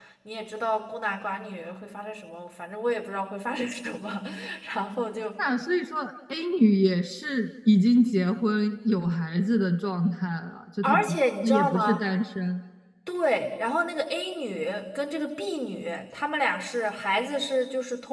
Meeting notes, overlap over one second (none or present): present